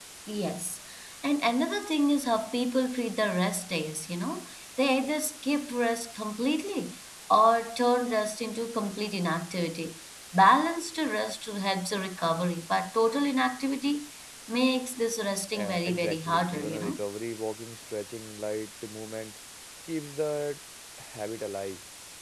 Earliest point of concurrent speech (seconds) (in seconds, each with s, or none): 15.6 s